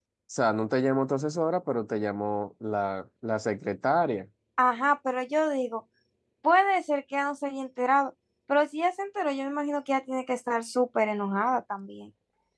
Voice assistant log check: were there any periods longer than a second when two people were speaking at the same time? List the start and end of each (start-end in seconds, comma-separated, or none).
none